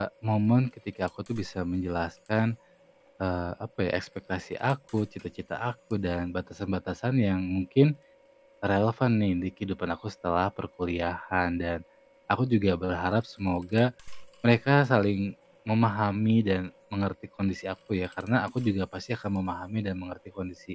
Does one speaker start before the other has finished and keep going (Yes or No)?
No